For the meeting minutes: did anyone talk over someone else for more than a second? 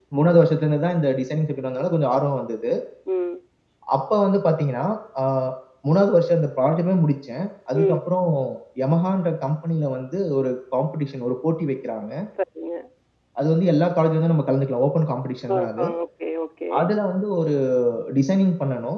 No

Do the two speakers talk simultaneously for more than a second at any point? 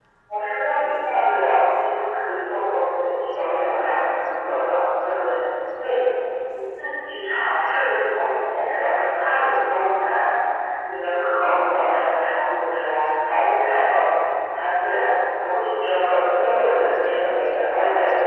Yes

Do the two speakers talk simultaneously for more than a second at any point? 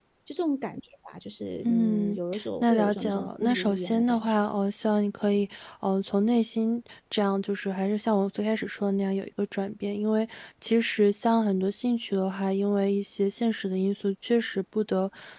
Yes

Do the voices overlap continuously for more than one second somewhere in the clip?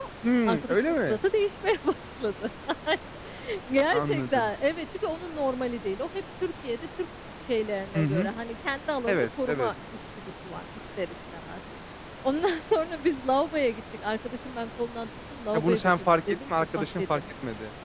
Yes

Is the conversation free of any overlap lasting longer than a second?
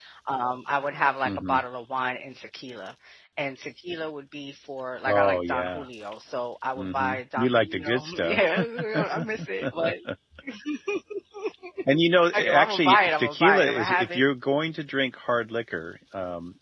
No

